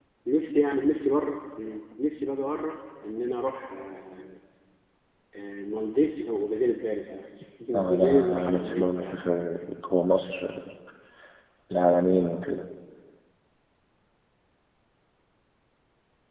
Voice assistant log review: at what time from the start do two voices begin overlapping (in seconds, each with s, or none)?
7.9 s